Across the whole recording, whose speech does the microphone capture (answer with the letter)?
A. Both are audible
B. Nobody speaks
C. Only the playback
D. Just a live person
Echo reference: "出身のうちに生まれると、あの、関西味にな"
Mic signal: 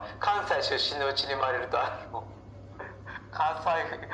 C